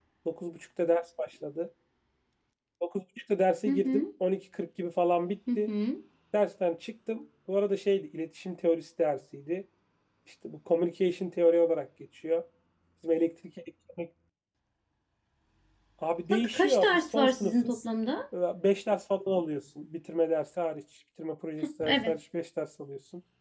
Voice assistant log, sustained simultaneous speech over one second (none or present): present